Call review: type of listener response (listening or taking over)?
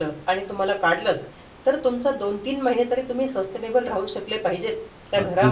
taking over